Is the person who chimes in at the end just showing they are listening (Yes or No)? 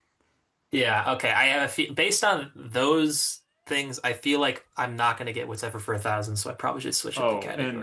No